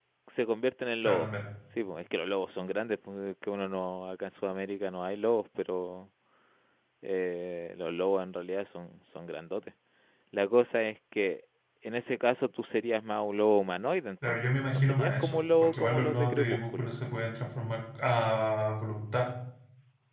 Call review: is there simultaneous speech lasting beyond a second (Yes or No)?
Yes